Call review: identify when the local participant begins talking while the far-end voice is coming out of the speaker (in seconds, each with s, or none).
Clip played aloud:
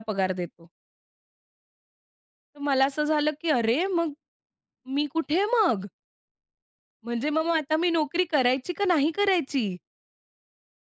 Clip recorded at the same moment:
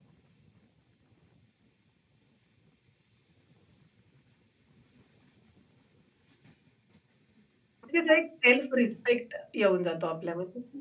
7.8 s